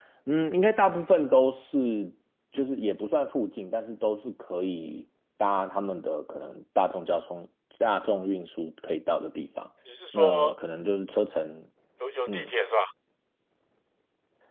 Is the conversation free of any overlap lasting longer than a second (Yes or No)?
Yes